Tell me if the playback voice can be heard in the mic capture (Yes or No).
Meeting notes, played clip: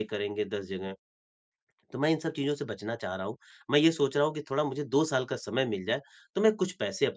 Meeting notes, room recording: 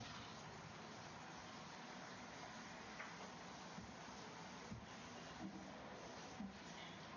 No